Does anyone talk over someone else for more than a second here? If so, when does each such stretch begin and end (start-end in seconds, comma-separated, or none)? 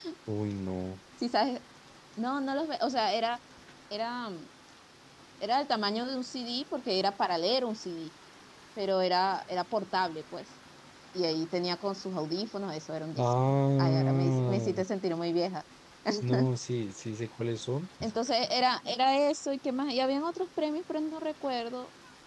13.2-14.8